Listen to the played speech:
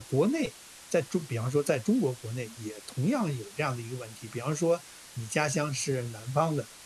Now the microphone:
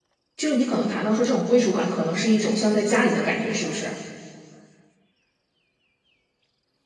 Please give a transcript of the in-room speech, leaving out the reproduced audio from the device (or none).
就是你可能谈到说这种归属感，可能是一种像在家里的感觉，是不是？